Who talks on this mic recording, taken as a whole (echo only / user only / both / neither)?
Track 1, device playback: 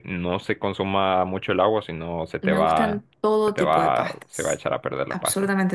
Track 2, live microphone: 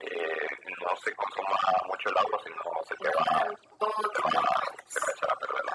echo only